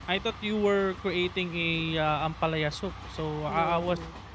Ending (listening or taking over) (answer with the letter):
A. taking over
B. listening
B